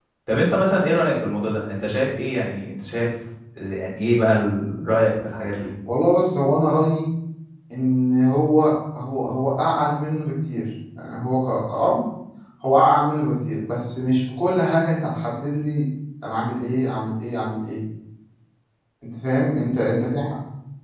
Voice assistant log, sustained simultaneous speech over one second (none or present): none